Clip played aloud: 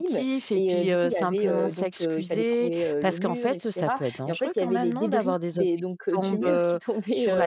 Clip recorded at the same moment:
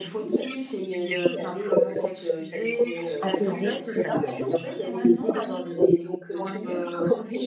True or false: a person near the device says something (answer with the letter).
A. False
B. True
B